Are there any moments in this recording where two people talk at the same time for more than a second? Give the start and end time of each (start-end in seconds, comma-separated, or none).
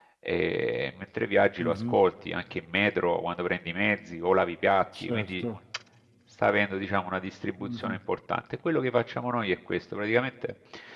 none